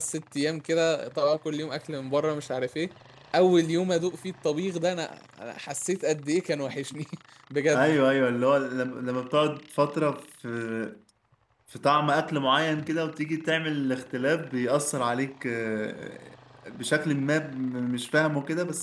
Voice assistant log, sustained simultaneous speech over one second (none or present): none